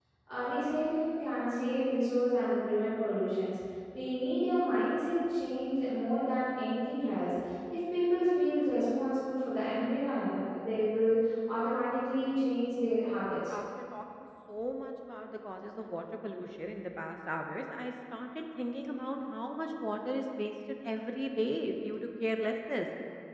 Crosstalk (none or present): none